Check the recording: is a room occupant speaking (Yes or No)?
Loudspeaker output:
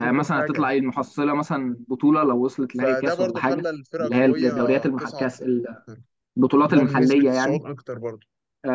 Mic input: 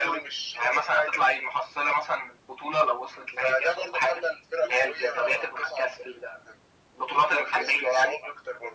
No